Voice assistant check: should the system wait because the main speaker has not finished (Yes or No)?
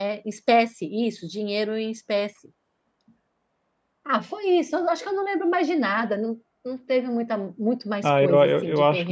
No